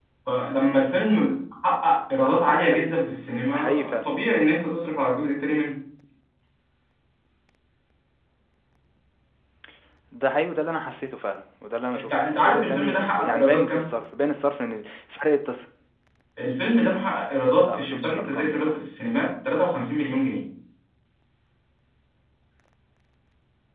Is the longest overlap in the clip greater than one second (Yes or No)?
Yes